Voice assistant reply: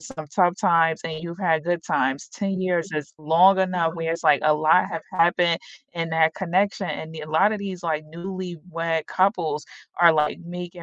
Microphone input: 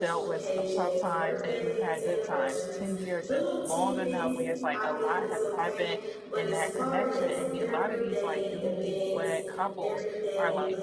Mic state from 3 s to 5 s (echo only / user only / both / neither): both